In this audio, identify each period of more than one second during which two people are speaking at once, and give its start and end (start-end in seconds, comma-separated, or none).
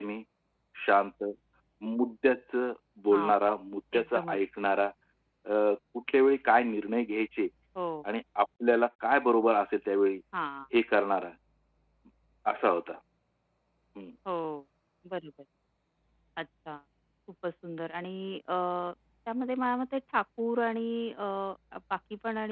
none